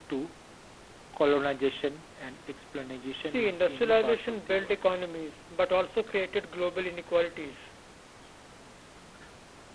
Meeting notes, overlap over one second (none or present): present